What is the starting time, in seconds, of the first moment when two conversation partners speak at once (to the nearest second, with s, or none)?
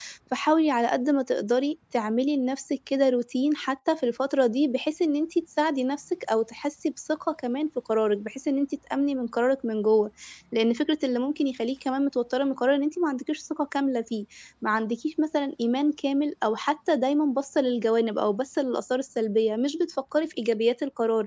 none